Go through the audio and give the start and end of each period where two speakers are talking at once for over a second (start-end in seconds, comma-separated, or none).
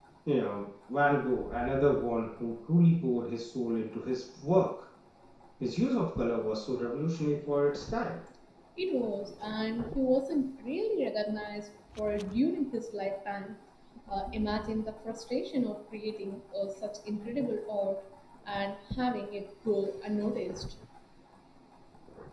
none